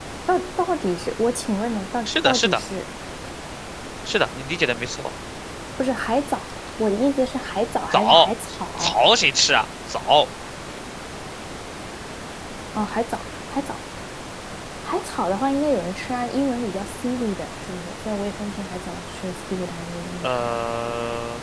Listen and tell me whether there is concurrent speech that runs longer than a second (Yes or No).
No